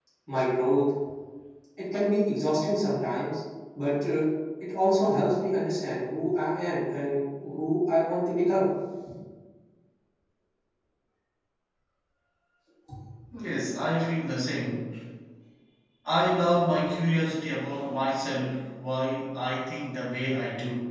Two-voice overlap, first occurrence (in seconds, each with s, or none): none